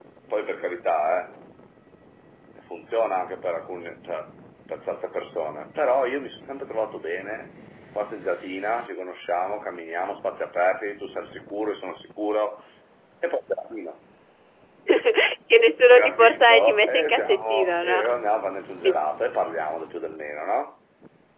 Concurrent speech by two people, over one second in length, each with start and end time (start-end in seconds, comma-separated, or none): 15.9-18.0